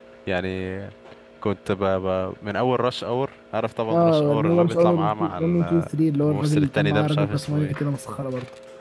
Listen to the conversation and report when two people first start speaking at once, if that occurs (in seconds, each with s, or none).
3.9 s